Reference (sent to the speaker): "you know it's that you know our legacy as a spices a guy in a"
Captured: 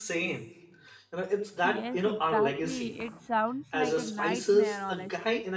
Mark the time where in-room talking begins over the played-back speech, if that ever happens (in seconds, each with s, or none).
1.6 s